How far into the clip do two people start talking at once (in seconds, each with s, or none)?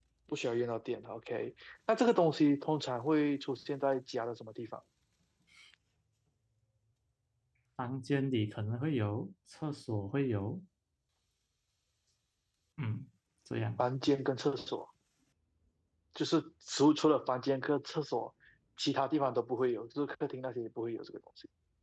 none